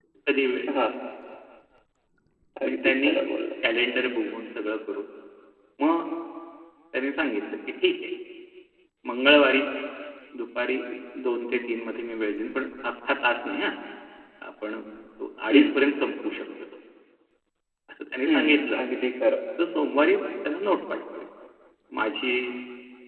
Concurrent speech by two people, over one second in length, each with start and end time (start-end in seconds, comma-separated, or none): none